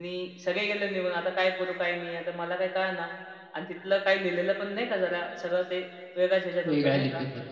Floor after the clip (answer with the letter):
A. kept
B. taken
B